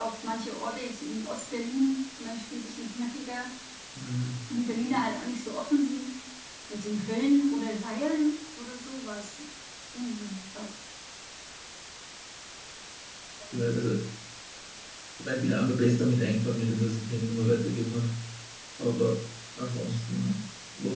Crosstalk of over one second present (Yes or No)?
No